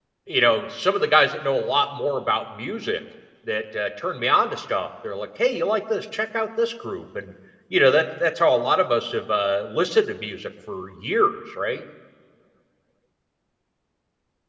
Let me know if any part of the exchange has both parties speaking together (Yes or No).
No